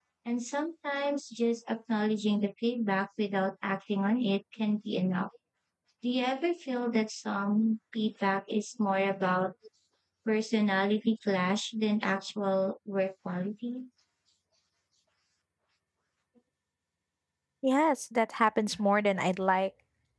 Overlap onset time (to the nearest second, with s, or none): none